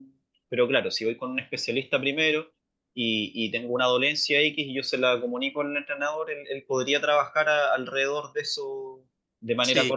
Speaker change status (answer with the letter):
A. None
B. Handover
B